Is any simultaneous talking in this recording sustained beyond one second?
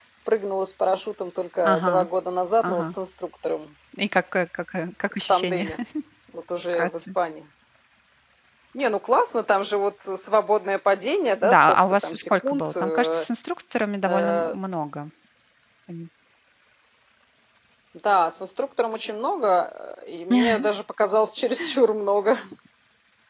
Yes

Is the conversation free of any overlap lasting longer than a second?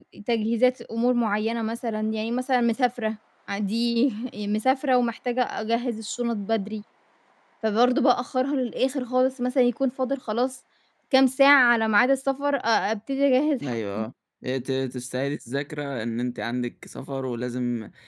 Yes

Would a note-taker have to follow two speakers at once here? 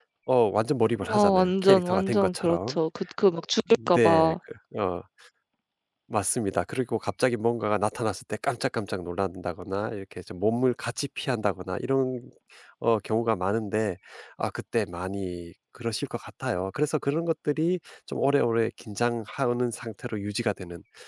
Yes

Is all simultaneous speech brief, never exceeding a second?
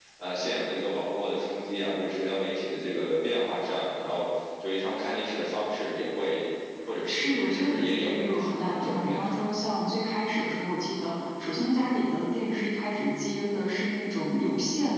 No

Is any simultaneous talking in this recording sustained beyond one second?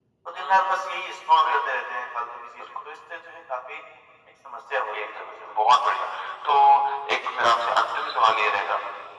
Yes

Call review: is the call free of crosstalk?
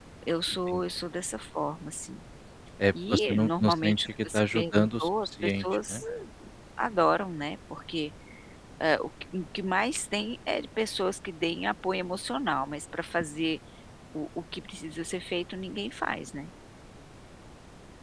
No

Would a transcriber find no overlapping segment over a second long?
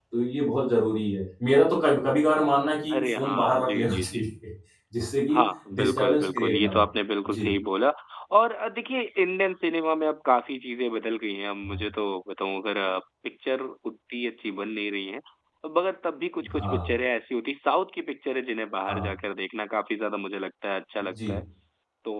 No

